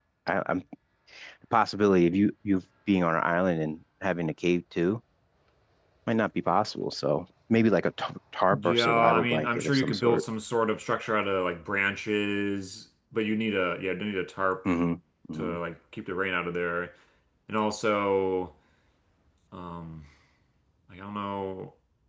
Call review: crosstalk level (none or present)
present